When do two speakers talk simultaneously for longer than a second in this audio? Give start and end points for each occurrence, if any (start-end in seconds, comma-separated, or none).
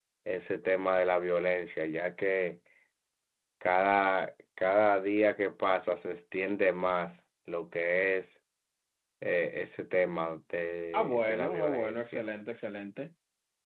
10.9-12.2